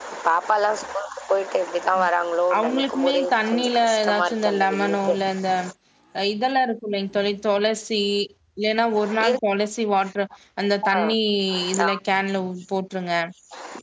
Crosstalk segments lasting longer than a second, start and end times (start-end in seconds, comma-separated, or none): 2.6-5.2